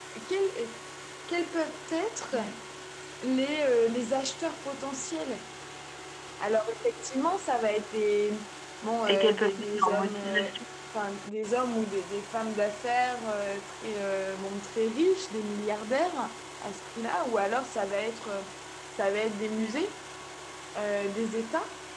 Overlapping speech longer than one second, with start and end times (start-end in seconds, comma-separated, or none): 9.1-10.5